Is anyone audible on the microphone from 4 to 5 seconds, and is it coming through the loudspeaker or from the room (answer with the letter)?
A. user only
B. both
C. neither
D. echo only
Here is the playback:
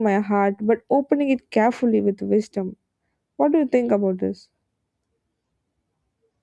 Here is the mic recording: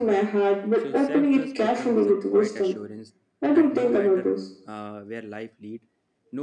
B